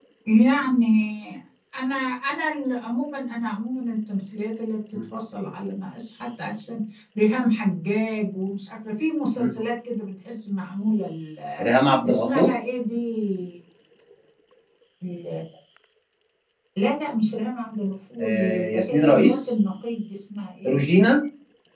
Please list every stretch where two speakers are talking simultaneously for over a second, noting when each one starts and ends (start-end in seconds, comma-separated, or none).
18.2-19.5